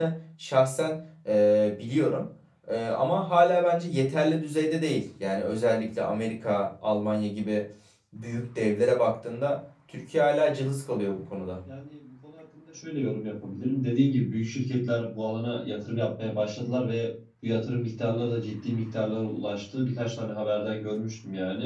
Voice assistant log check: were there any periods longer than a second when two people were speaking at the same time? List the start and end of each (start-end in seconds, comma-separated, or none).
none